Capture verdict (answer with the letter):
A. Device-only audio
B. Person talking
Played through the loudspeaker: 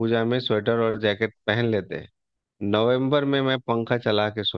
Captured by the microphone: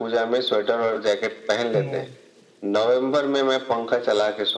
B